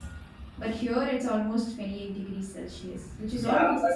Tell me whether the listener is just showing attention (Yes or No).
No